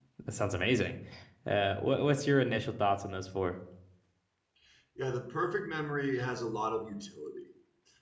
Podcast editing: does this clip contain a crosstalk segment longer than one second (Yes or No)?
No